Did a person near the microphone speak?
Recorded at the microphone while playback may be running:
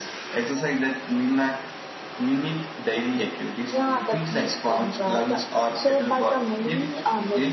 No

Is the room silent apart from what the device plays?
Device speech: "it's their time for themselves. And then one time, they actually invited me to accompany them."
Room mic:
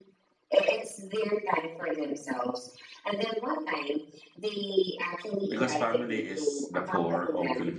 No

